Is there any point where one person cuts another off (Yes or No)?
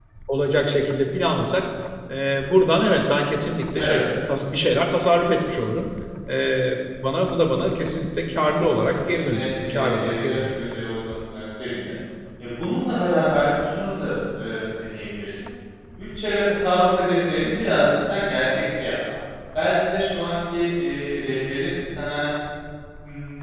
Yes